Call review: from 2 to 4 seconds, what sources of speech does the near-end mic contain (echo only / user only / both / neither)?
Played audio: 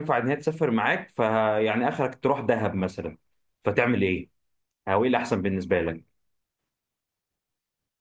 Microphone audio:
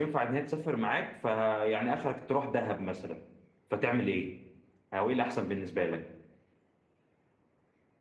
echo only